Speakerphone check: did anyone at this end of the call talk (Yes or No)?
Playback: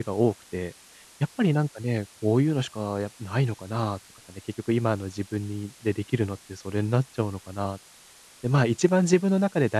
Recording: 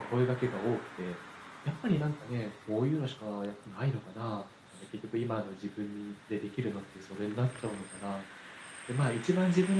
No